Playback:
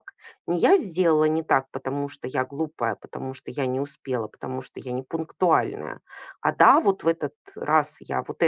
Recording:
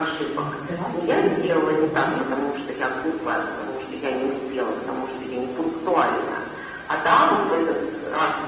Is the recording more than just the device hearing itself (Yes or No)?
Yes